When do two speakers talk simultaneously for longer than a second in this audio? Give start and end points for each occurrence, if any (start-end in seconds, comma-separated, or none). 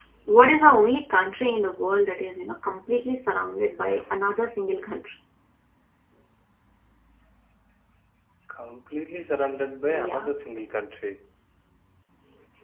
none